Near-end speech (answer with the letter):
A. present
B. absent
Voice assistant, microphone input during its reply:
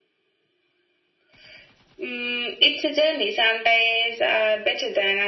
B